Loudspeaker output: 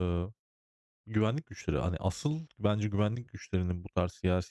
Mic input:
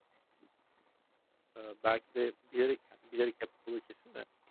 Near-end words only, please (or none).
Eee, belki de bilerek, yani, bilerek yapıldığı kesin de,